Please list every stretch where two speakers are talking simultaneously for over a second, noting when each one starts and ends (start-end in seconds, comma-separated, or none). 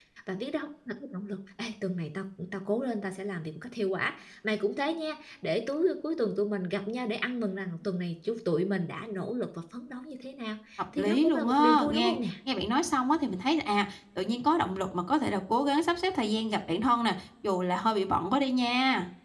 11.0-12.2